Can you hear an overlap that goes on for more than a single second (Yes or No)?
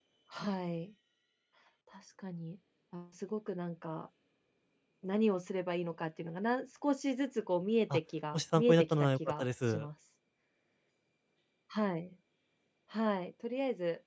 Yes